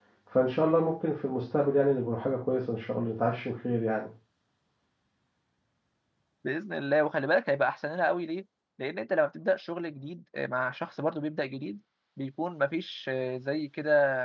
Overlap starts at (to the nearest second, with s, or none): none